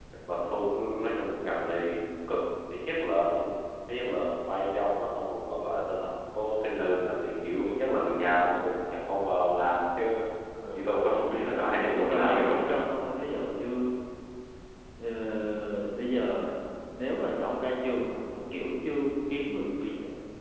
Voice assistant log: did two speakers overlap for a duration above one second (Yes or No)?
Yes